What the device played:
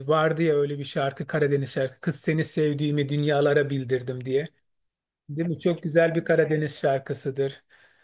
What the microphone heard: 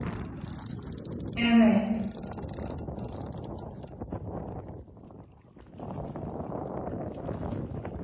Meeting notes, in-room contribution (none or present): present